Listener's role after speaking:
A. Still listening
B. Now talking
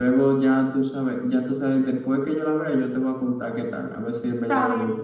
B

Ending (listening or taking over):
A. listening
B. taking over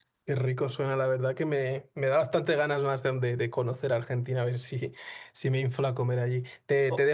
A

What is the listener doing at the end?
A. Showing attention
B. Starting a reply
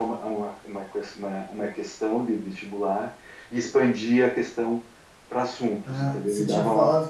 B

